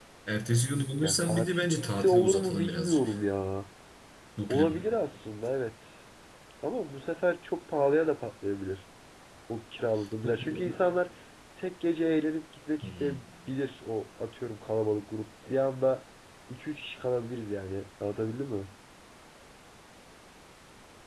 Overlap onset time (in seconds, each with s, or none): 1.0 s